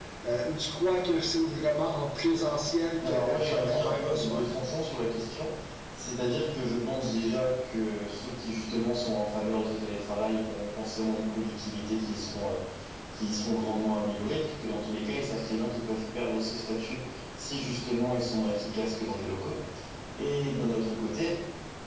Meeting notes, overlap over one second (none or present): present